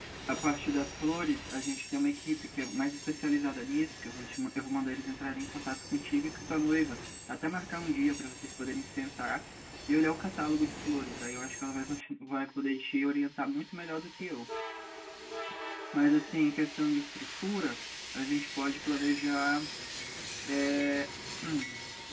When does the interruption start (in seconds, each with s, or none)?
none